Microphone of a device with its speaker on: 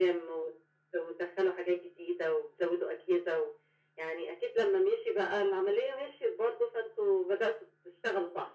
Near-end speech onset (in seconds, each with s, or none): none